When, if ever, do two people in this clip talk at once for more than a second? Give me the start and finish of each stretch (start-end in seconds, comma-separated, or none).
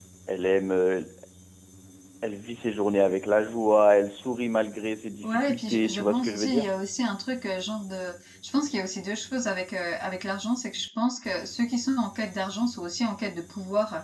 5.2-6.7